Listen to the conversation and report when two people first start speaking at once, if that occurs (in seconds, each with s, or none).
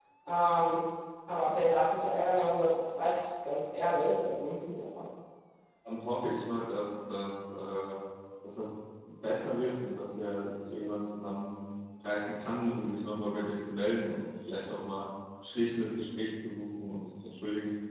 none